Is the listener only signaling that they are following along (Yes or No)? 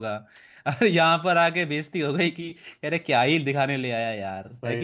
No